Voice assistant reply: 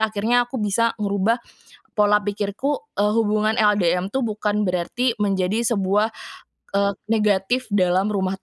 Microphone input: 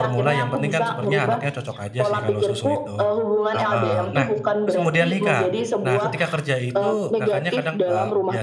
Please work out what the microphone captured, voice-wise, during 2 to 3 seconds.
both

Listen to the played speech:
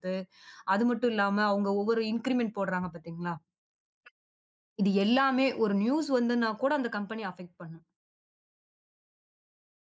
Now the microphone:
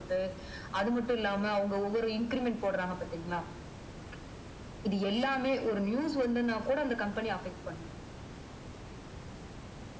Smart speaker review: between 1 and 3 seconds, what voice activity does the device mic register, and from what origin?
echo only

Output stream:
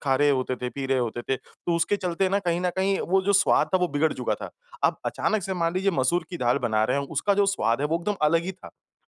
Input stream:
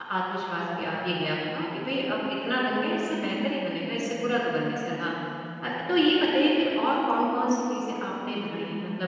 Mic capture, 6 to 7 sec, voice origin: user only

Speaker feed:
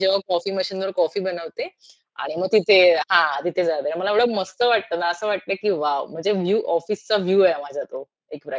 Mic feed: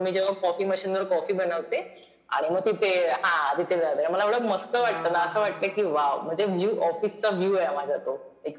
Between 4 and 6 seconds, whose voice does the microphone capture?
both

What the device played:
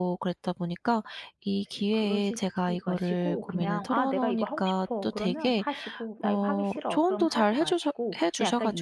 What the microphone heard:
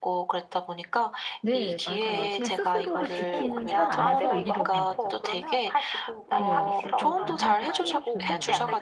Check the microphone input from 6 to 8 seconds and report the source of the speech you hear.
both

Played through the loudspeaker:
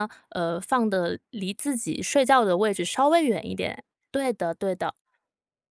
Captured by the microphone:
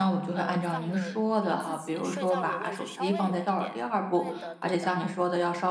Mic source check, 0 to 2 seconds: both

